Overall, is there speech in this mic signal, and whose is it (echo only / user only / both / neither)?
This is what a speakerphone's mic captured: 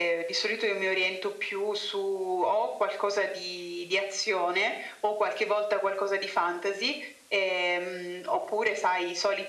echo only